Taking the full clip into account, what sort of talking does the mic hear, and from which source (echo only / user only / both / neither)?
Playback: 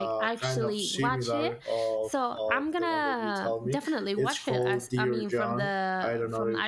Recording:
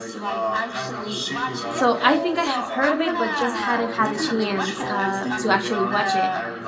both